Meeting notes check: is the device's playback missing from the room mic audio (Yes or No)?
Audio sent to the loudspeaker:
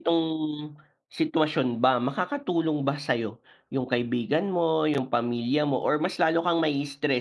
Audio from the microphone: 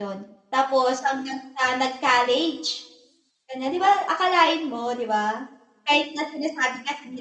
Yes